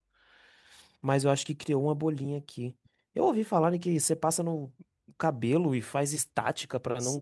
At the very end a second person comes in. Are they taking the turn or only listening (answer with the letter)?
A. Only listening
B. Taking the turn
B